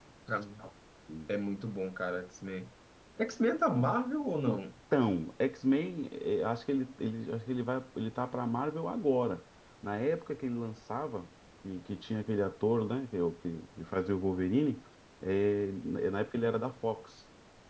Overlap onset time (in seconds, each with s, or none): none